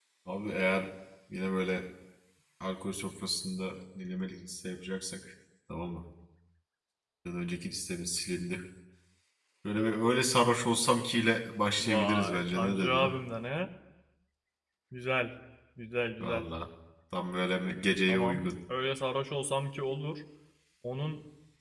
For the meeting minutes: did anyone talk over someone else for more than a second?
Yes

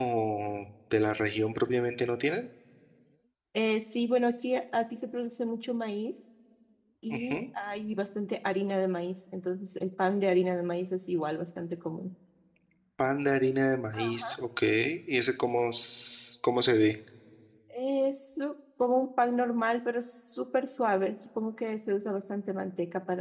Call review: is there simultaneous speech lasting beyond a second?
No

